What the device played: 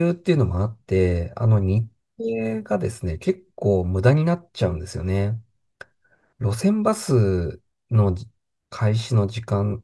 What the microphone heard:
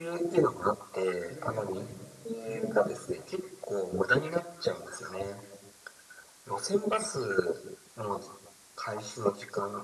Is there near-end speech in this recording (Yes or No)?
Yes